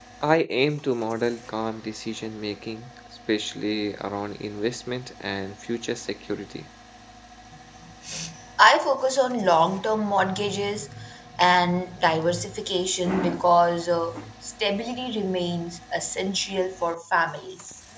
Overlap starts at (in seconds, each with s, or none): none